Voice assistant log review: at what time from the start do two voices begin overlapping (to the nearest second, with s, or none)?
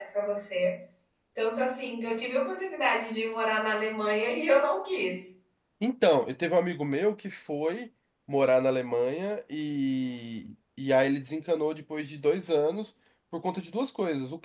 none